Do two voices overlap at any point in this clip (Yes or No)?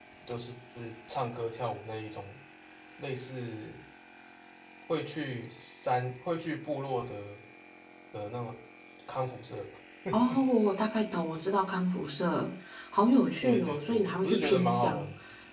Yes